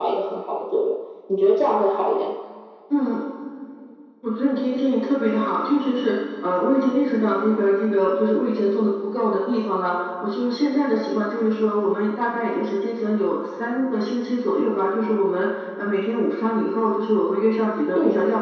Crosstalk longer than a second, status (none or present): none